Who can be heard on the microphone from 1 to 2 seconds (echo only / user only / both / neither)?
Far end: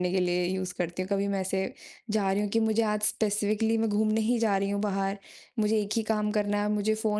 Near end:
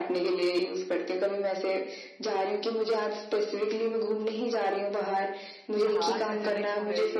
echo only